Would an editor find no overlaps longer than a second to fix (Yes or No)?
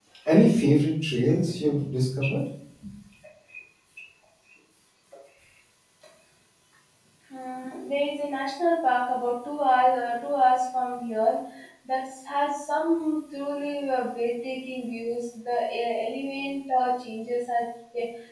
Yes